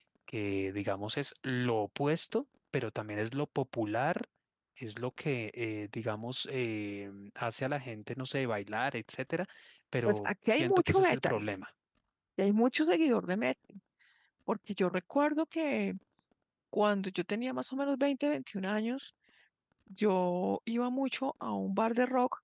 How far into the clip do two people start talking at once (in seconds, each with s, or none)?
10.1 s